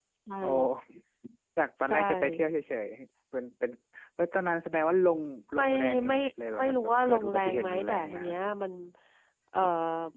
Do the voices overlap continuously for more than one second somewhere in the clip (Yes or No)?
Yes